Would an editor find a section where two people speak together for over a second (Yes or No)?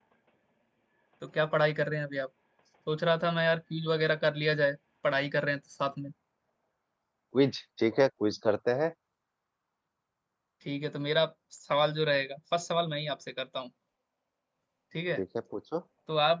No